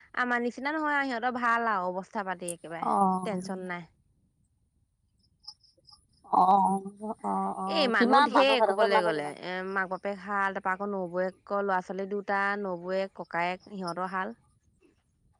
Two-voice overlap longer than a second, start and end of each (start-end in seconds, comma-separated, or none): 7.7-9.3